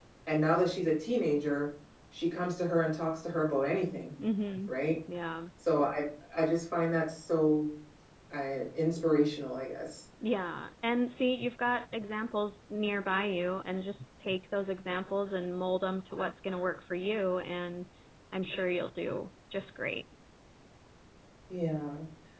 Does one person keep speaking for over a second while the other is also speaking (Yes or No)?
No